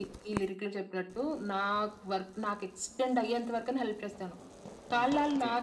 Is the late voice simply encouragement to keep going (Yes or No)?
Yes